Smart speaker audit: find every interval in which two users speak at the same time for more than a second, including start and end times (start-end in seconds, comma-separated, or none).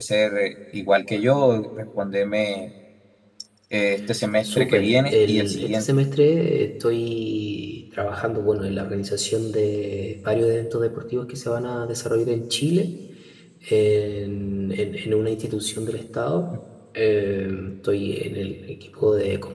4.4-5.9